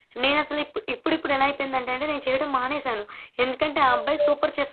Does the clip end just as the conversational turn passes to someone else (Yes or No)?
No